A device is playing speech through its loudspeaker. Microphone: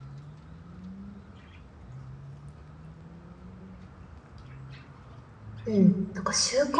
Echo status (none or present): none